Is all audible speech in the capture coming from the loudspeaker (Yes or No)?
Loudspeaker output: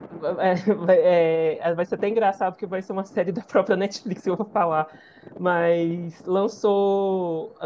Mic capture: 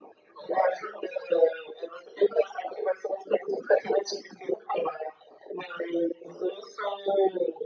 Yes